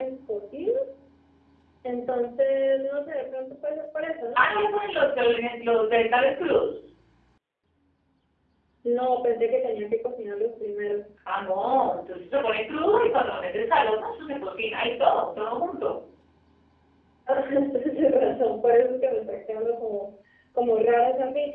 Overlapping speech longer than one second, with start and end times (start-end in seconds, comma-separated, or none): none